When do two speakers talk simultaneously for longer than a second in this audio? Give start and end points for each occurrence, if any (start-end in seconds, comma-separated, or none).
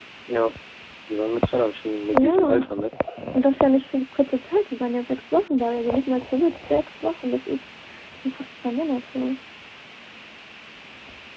none